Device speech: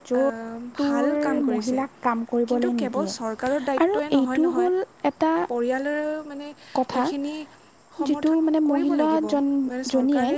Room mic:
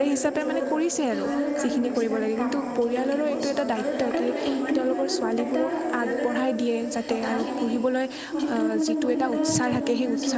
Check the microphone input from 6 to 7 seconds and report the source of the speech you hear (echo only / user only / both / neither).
both